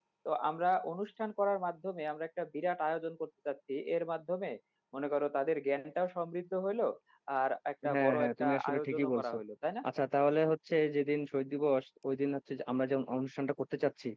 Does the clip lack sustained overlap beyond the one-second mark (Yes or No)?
No